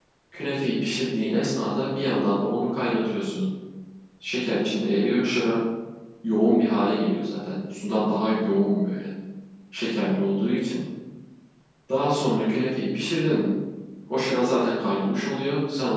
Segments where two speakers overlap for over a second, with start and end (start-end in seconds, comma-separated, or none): none